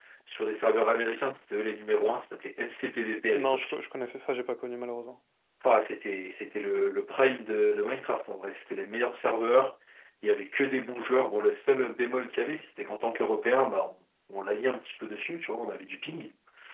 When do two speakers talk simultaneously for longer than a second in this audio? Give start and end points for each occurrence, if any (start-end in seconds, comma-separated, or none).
none